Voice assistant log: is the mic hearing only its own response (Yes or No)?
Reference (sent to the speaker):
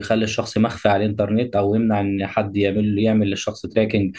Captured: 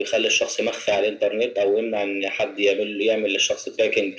Yes